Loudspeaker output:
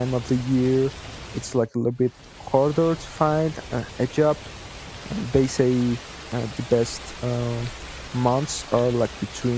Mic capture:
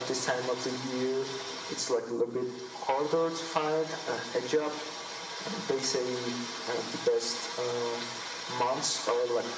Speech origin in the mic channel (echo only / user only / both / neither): echo only